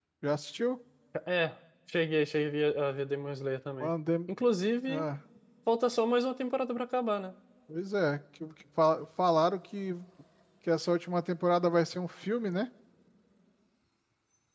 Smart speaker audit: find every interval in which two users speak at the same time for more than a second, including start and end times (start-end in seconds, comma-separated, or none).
none